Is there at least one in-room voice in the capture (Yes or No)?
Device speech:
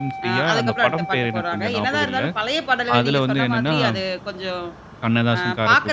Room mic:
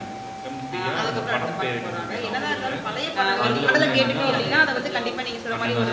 Yes